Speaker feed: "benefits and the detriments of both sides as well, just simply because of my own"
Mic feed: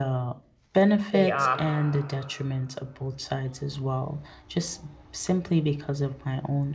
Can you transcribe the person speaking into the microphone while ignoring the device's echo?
day off,

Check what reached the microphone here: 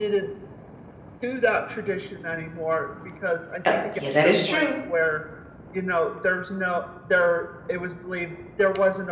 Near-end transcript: Uh, yeah, that is true.

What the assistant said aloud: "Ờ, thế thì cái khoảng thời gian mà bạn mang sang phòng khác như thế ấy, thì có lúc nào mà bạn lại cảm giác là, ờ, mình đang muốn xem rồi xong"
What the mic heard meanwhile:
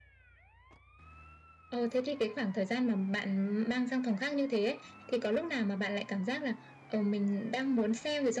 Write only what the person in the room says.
none

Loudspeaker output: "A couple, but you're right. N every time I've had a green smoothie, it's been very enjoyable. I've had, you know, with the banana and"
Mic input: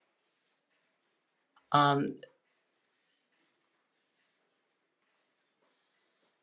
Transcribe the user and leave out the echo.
um,

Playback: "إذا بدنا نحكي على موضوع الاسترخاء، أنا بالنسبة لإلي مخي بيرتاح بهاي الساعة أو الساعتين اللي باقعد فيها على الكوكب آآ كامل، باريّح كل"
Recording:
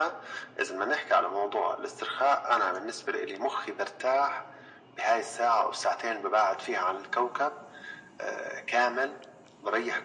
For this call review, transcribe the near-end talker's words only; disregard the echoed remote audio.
none

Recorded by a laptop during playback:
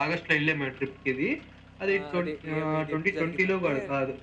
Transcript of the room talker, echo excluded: ఆహ్, అదే ఏమి ఇది ఎప్పుడు జరిగిందంటే

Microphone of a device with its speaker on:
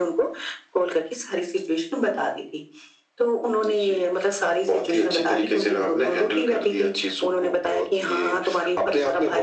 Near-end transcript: none

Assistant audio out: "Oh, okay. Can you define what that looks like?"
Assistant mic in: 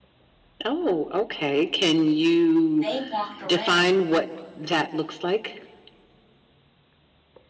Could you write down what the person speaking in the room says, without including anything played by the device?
they walked around

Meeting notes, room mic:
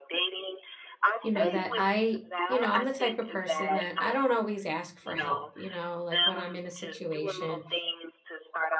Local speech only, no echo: you know, that I, you know, I'm the type of person that I don't always ask for help, you know, like when I'm in a situation,

